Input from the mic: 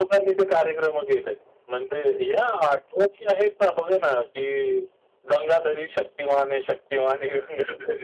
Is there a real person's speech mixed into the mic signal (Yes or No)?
No